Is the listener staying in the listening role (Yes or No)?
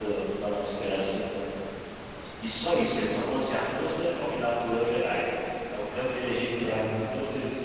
Yes